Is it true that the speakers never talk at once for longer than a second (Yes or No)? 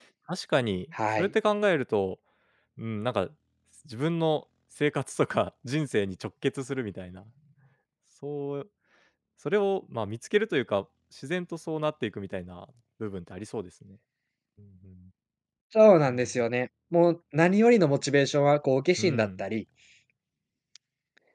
Yes